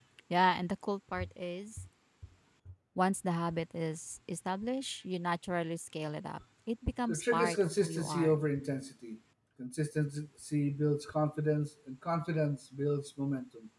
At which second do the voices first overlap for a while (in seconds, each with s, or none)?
7.1 s